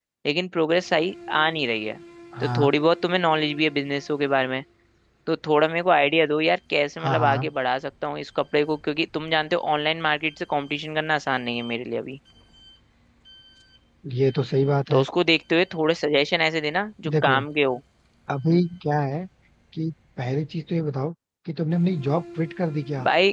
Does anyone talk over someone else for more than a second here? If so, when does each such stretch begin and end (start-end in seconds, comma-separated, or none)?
none